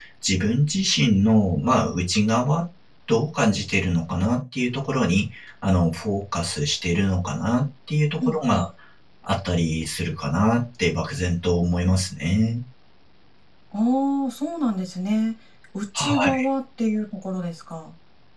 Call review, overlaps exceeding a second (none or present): none